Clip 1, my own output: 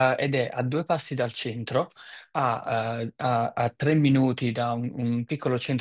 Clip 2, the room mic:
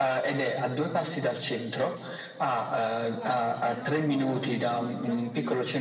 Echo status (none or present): present